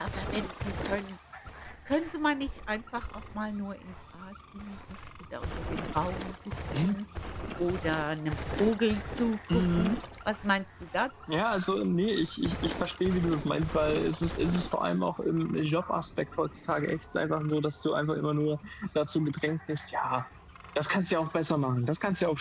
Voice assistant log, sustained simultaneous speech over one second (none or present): none